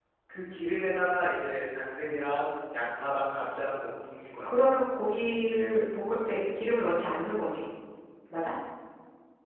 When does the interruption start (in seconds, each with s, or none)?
none